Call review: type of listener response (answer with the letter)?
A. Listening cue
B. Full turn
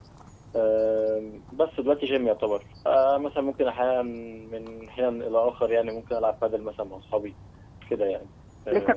B